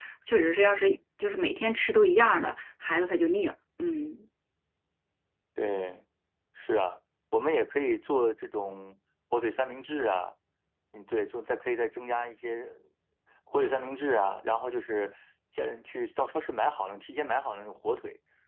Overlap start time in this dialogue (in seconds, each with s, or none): none